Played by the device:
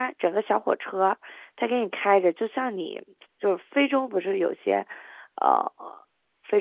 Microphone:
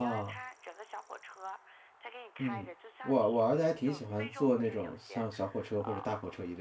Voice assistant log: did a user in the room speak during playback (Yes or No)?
Yes